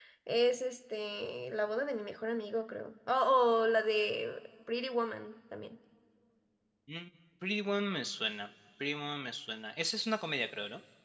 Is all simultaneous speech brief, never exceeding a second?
Yes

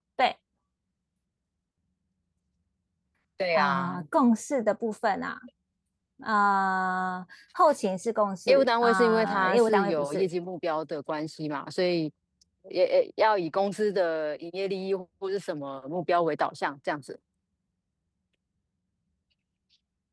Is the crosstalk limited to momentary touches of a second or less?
No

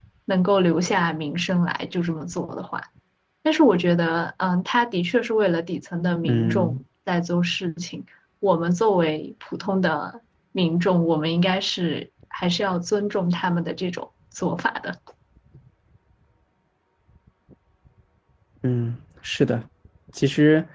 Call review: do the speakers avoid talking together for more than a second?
Yes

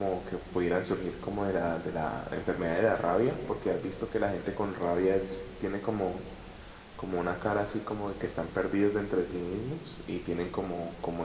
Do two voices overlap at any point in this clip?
No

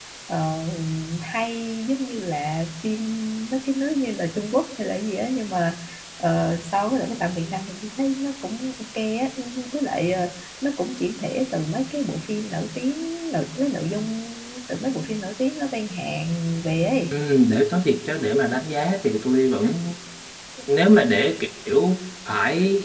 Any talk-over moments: No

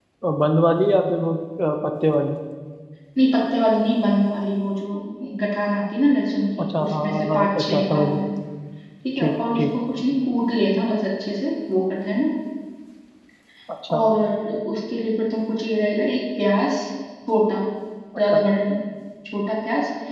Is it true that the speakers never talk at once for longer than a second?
No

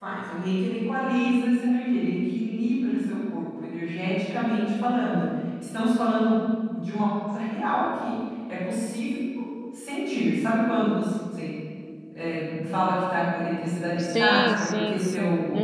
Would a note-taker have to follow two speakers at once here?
Yes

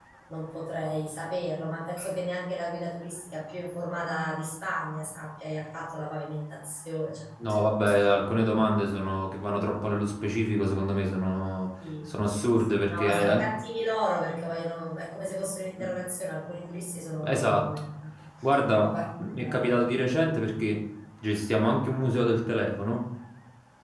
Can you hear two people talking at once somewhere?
Yes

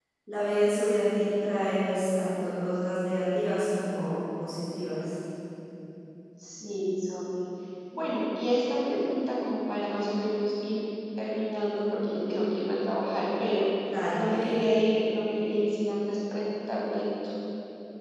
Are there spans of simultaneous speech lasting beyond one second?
No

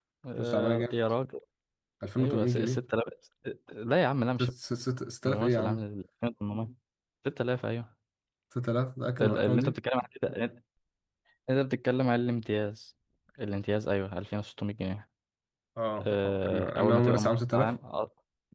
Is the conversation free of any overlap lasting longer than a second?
No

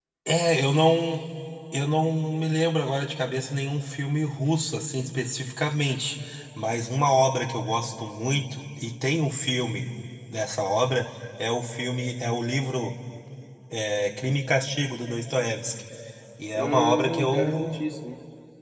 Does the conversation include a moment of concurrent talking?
Yes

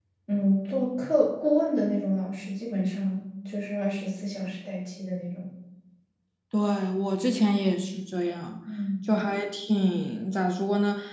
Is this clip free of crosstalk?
Yes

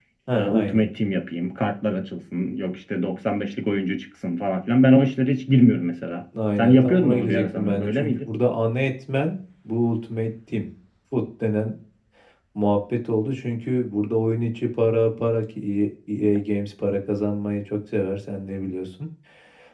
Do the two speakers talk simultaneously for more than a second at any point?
Yes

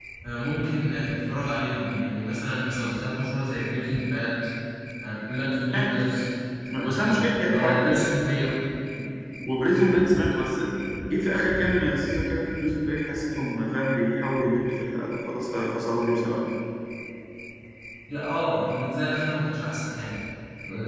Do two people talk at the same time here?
Yes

